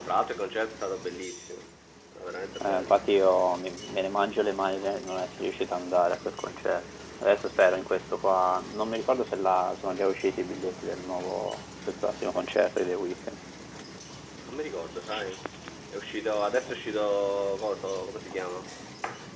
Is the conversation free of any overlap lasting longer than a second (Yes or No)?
Yes